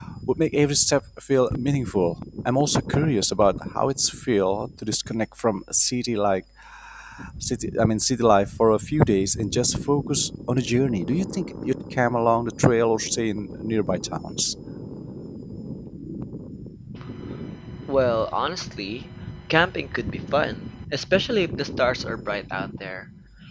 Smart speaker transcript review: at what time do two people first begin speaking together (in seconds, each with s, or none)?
none